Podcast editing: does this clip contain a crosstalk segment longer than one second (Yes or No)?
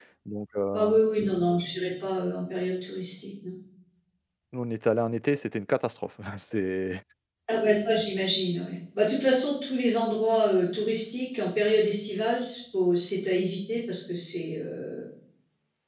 No